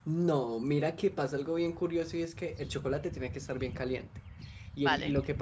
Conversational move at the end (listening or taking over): listening